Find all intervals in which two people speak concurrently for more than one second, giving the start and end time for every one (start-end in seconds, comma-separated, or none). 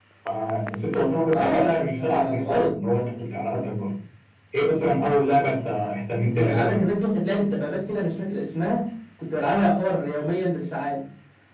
1.3-2.7